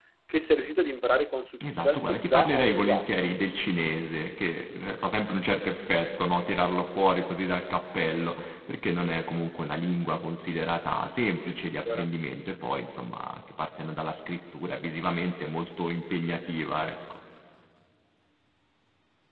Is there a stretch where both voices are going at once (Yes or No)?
Yes